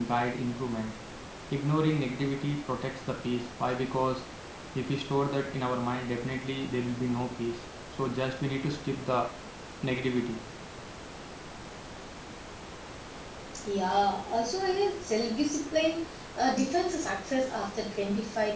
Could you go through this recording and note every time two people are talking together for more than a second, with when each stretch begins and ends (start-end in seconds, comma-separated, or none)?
none